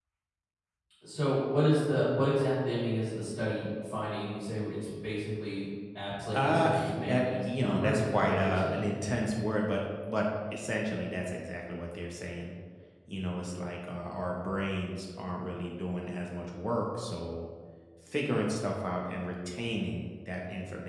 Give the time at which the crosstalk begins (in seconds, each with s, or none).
6.3 s